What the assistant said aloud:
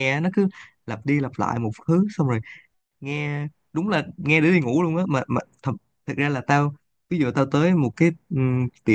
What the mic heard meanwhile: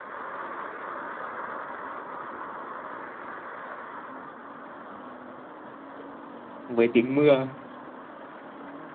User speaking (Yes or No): Yes